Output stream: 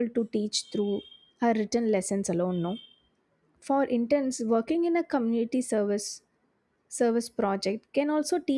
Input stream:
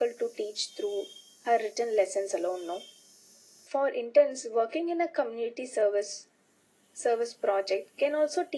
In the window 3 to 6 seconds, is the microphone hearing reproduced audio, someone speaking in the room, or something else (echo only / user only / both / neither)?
echo only